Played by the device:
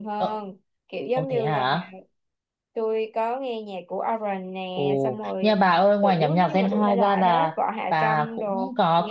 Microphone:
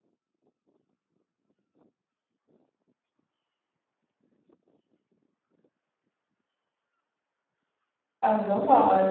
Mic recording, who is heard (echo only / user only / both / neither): user only